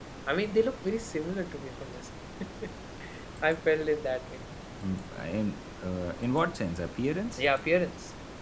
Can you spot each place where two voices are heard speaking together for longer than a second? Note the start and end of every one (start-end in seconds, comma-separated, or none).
none